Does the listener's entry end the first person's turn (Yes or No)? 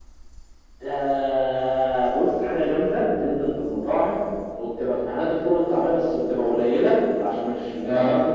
No